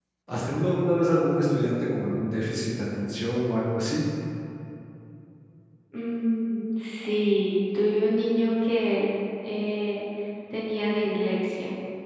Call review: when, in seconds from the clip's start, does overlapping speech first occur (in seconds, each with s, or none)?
none